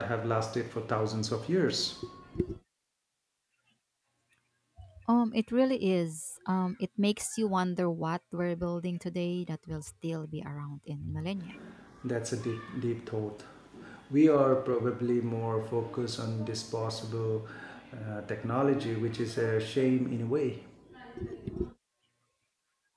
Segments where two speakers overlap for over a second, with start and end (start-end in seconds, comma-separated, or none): none